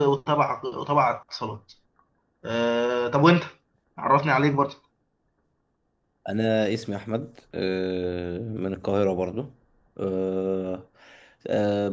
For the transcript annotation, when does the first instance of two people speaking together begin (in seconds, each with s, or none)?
none